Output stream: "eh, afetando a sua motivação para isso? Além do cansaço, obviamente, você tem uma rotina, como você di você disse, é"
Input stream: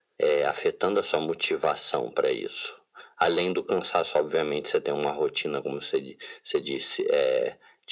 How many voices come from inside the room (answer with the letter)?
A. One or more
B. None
B